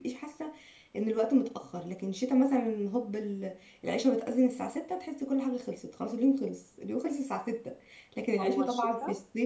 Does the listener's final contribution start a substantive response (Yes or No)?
No